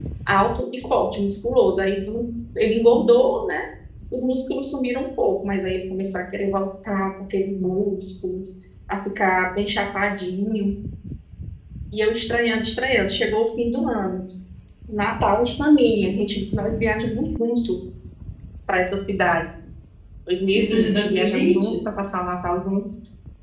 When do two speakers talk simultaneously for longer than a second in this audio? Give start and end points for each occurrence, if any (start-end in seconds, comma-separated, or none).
20.5-21.8